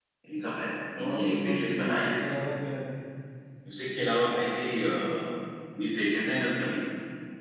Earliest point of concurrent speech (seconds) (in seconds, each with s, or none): 1.0 s